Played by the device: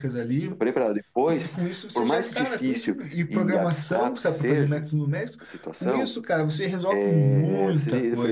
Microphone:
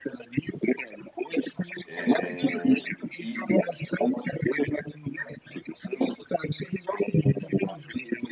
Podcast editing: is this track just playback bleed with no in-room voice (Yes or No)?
No